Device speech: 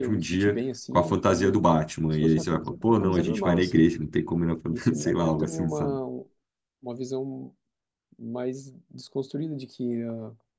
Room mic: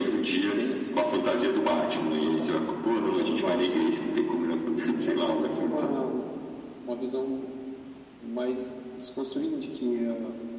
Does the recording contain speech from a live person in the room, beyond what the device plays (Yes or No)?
No